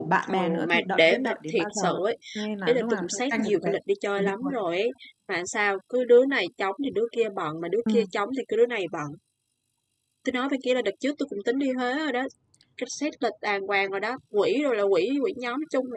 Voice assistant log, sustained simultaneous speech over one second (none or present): present